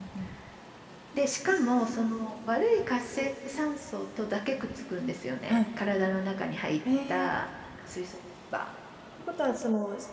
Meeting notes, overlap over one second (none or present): none